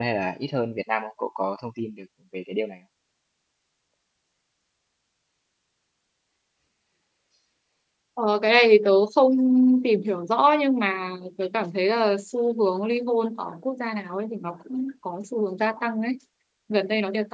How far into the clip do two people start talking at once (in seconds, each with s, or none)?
none